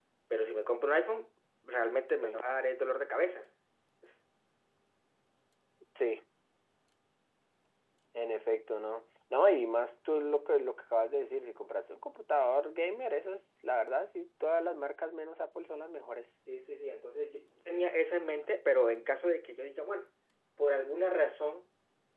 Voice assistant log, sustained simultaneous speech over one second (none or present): none